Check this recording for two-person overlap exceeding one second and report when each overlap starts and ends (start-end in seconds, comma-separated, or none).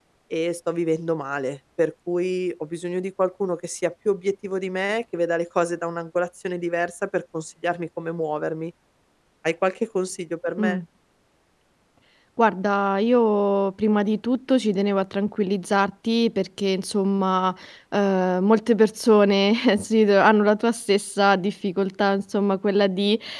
none